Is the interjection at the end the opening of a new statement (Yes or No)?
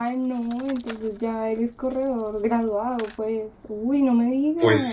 Yes